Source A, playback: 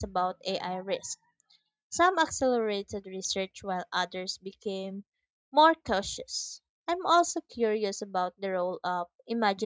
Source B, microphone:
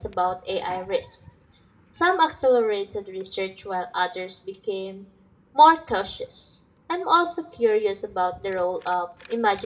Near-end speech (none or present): none